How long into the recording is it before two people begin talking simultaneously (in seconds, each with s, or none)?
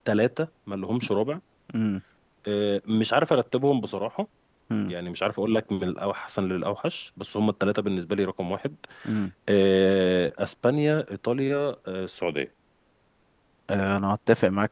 none